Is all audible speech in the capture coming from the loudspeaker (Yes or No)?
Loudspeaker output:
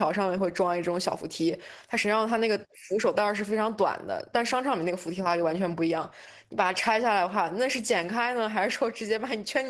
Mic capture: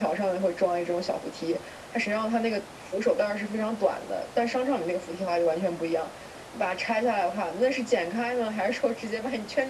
Yes